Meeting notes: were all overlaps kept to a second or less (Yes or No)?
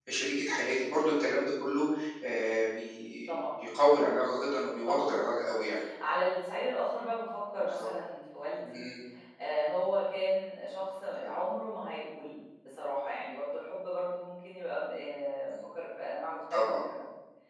Yes